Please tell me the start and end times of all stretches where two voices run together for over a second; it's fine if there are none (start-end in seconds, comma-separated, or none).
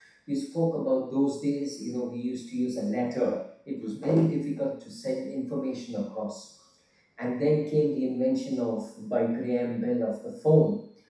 none